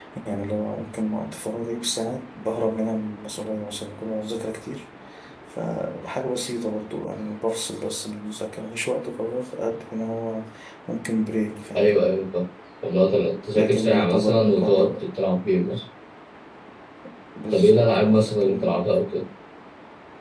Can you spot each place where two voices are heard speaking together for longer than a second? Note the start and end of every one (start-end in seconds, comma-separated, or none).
13.5-15.1, 17.5-18.9